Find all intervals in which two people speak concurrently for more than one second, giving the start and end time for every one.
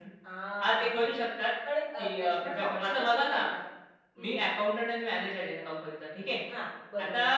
2.0-3.4

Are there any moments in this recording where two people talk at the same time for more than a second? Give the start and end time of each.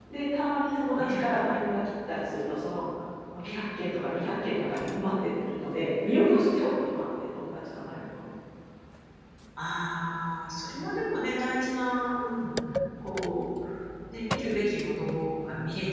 none

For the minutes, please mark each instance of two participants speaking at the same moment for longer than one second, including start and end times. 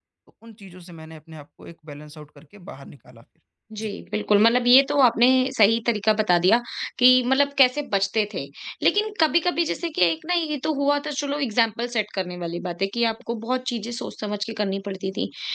none

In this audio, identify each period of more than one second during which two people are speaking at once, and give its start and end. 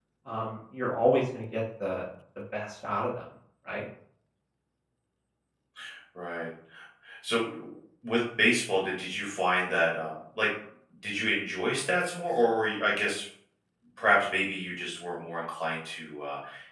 none

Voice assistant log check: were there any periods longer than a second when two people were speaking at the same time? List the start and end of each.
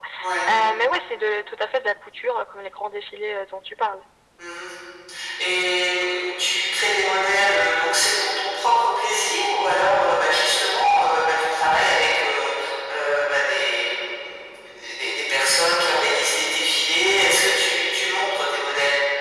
none

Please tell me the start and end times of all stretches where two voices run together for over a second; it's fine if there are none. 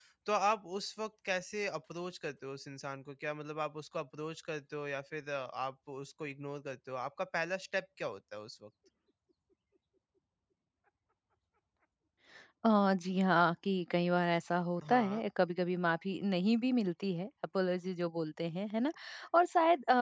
none

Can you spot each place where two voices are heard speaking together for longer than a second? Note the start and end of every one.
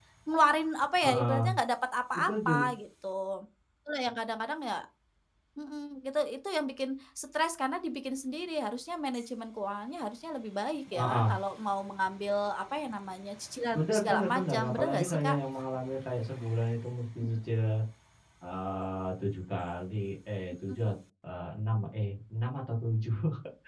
13.8-15.4

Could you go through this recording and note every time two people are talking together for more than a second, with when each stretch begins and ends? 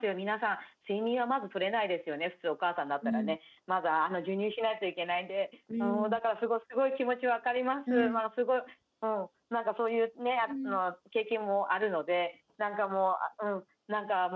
none

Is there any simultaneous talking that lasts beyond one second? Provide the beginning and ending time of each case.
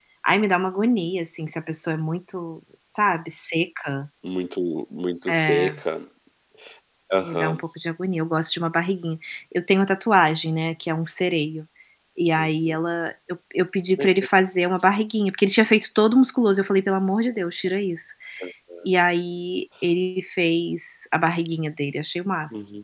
none

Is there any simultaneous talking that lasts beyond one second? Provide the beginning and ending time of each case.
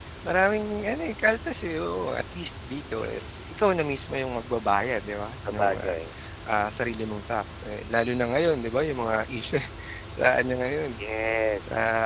none

